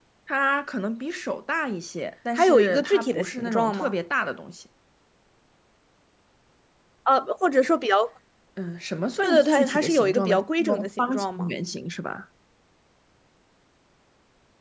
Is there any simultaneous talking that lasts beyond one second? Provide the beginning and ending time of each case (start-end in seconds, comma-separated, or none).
2.3-3.9, 9.2-11.5